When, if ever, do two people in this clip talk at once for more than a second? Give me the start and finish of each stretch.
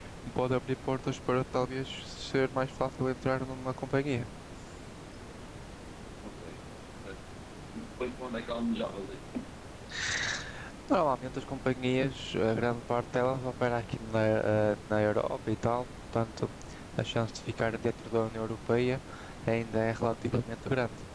none

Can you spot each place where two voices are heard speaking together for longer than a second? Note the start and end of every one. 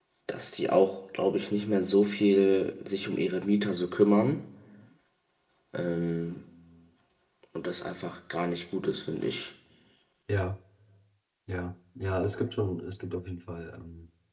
none

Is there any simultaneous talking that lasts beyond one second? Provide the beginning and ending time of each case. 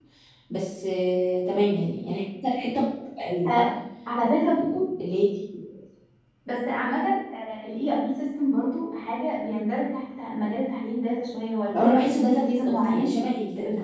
11.8-13.1

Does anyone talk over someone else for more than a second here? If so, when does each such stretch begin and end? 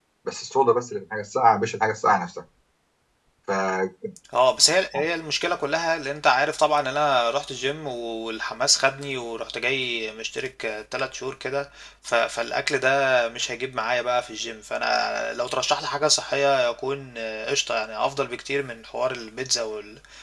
none

